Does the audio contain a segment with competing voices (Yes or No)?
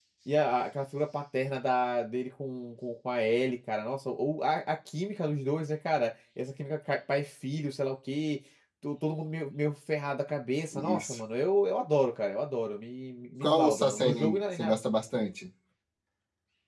Yes